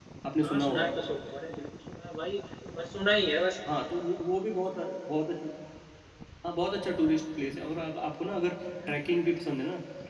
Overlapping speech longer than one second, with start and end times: none

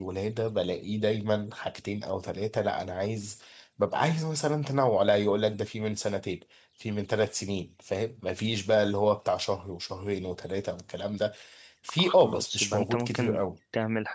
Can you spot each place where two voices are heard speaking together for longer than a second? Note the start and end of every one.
12.0-13.4

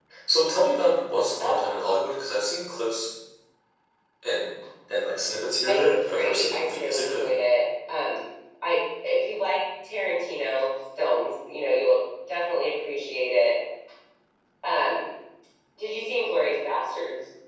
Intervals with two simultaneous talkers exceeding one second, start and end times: 5.7-7.3

